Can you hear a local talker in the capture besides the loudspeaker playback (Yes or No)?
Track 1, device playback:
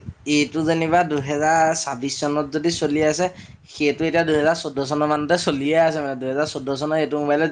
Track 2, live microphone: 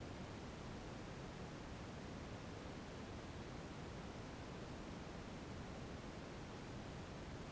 No